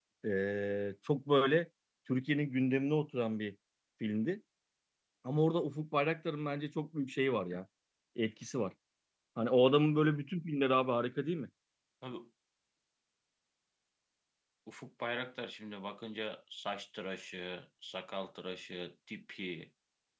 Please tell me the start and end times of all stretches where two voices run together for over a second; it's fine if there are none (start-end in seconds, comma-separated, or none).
none